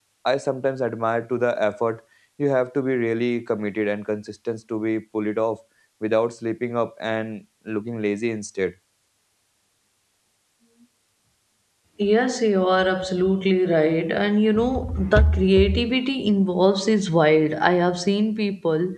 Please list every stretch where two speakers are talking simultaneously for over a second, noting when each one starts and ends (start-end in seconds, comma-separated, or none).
none